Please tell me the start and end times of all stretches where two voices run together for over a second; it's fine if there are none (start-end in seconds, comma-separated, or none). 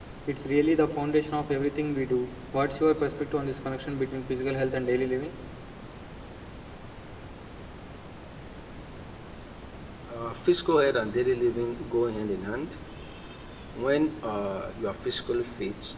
none